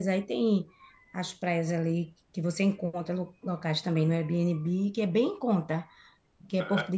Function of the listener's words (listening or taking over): listening